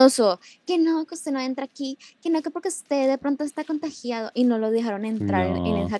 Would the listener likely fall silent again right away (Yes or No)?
Yes